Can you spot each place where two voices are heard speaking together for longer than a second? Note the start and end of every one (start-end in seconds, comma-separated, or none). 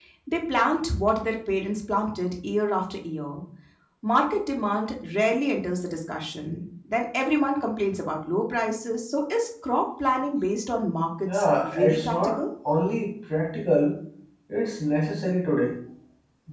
11.2-12.4